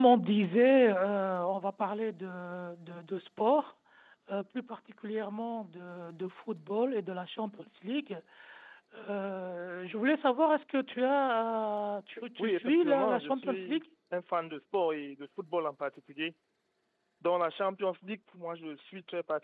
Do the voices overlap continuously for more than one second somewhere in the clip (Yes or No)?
Yes